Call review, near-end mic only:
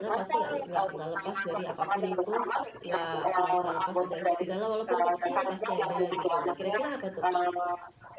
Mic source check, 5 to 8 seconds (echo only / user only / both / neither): both